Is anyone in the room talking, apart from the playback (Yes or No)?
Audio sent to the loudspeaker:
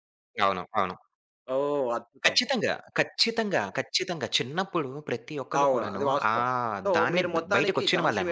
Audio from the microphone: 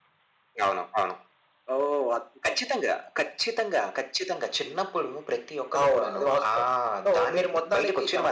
No